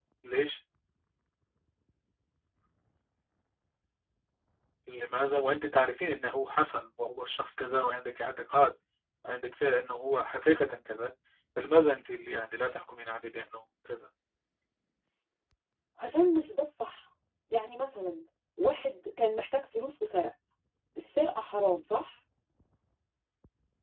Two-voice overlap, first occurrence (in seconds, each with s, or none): none